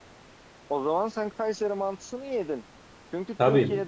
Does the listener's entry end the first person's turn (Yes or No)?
No